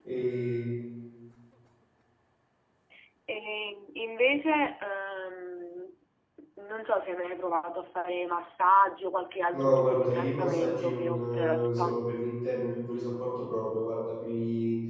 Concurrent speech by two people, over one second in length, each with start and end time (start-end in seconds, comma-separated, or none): 9.5-12.0